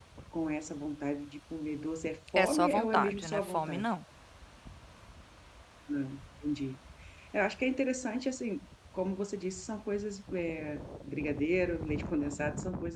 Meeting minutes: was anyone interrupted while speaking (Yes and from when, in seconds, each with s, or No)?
Yes, from 2.4 s